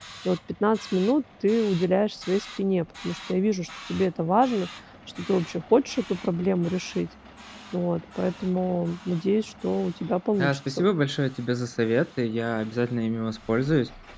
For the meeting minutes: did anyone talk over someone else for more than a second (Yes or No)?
No